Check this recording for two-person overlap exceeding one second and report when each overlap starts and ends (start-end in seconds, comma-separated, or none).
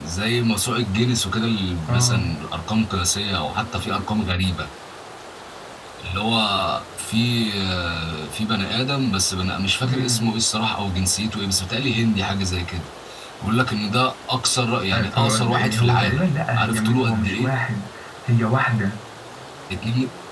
14.9-17.5